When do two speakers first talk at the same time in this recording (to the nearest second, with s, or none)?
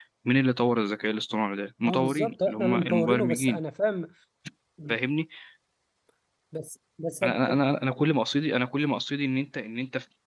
2 s